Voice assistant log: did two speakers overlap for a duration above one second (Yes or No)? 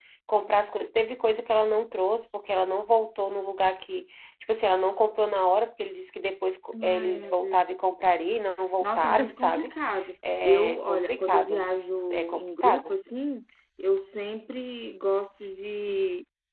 Yes